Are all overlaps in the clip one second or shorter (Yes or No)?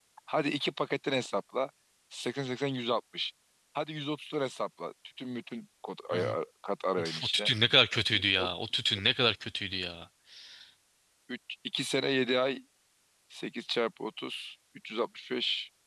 Yes